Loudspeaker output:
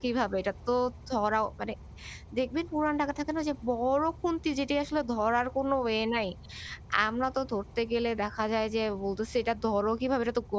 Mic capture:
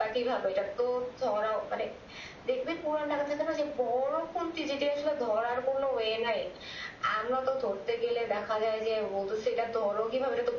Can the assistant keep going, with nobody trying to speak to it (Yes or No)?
Yes